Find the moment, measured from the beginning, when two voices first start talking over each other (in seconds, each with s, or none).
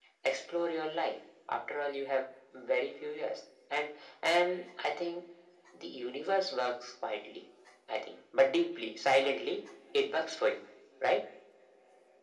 none